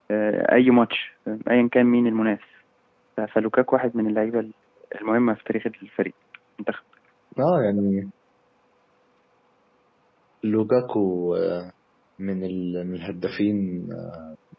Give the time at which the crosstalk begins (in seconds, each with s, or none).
none